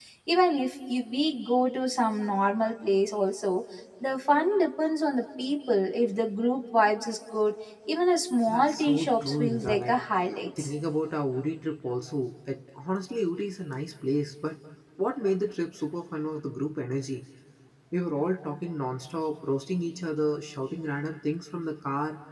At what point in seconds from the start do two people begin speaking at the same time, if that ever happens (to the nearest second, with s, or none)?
8 s